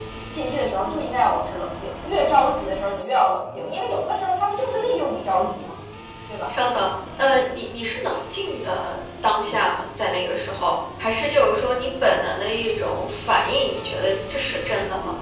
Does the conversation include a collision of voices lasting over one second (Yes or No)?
No